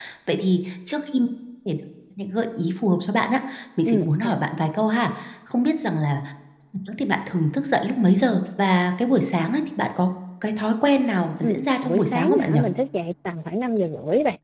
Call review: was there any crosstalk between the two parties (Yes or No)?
Yes